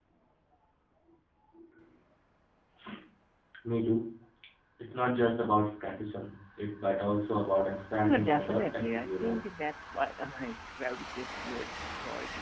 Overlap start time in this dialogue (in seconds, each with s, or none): 8.0 s